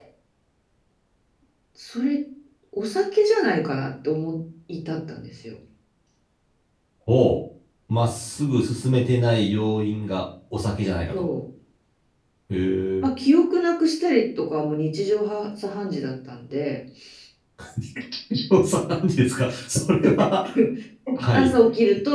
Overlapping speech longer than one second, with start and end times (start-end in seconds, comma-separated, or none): none